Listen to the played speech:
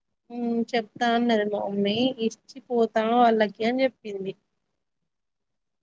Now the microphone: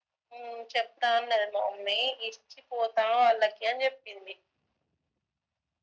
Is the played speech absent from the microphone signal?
No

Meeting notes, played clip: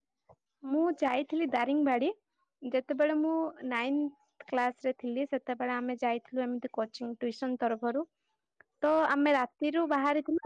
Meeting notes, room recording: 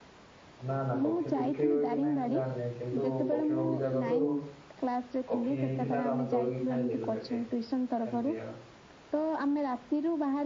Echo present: Yes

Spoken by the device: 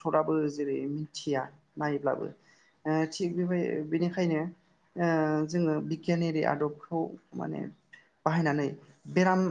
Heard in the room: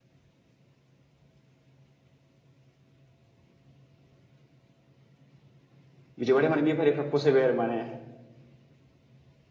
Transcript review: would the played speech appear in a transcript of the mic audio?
No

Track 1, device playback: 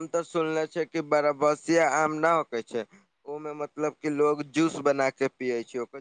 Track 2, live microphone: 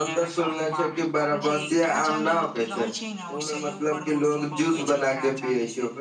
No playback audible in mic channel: No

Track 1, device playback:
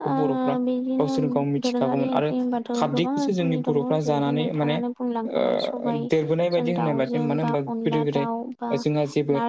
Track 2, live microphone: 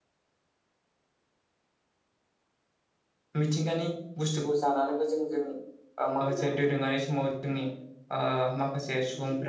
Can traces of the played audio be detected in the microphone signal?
No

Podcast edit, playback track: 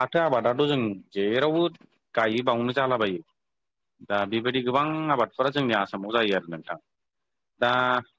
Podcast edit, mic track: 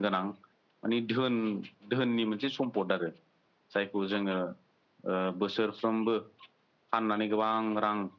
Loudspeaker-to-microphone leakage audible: No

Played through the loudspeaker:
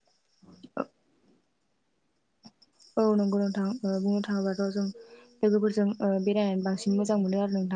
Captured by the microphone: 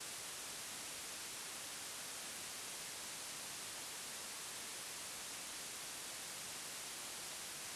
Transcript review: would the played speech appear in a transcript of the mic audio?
No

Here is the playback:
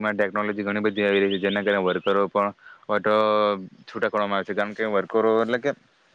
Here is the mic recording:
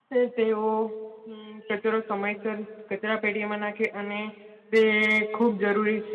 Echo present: No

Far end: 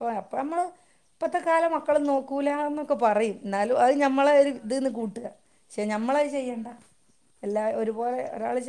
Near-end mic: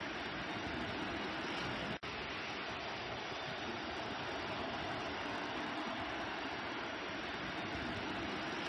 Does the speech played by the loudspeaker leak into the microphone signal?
No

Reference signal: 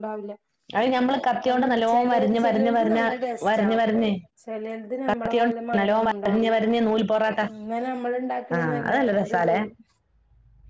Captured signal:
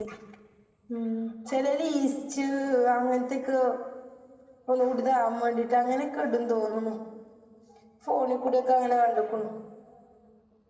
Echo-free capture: Yes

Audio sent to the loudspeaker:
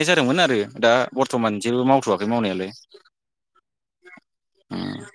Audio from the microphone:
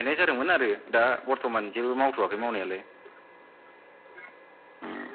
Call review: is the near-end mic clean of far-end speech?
No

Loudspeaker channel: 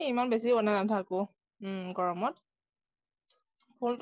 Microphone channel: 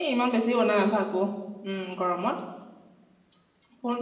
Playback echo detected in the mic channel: Yes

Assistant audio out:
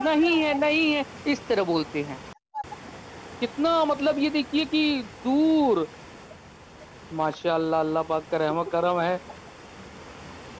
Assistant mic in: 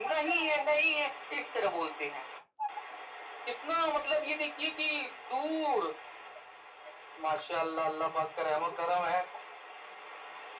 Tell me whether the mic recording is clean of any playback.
No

